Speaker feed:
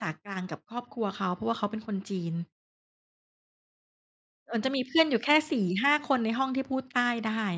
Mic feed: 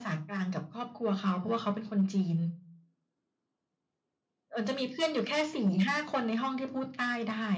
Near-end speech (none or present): none